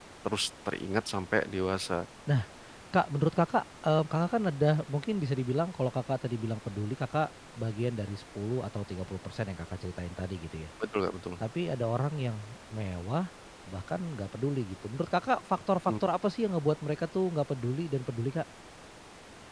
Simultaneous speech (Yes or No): No